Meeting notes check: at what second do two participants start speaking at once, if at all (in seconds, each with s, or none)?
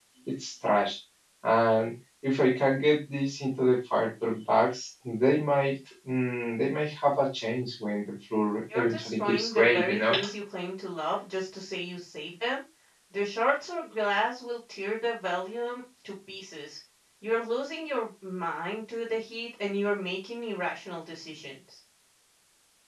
8.7 s